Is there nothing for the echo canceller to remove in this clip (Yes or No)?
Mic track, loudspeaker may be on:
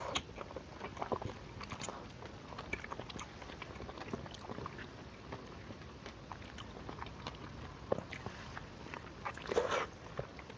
Yes